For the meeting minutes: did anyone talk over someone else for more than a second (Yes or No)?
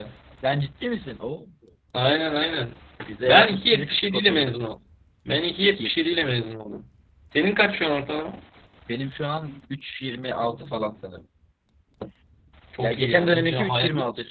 Yes